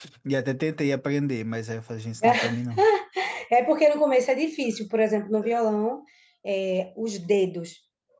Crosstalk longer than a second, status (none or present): none